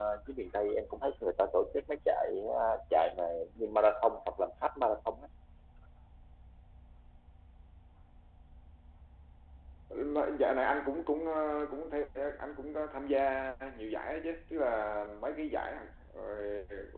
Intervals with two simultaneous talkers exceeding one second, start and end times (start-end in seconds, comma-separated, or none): none